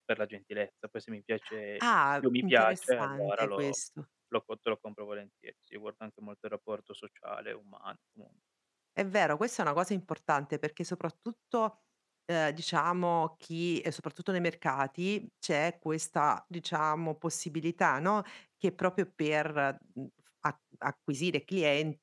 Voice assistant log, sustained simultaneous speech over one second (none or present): present